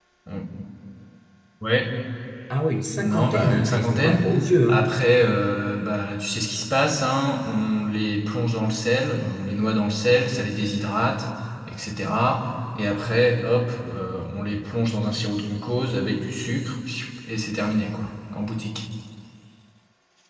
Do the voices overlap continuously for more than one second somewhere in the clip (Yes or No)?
Yes